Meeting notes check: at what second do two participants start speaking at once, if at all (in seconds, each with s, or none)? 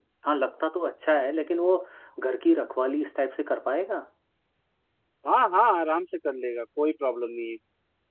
none